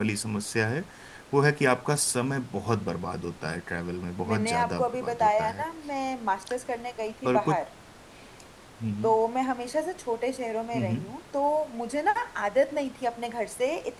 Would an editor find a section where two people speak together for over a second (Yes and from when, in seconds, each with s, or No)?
Yes, from 4.3 s